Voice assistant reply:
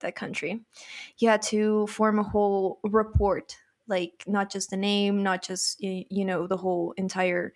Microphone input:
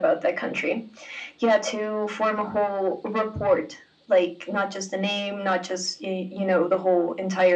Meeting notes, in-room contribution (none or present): none